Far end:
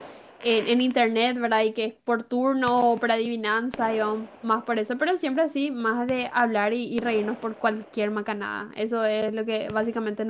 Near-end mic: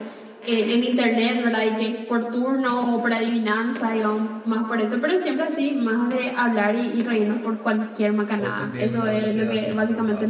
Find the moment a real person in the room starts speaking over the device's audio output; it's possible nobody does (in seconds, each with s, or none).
8.3 s